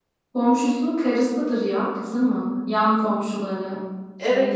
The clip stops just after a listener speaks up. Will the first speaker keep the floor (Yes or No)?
No